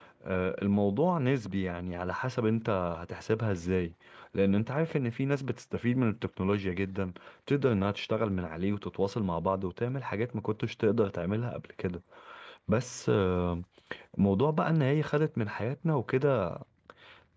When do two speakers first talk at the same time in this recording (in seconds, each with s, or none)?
none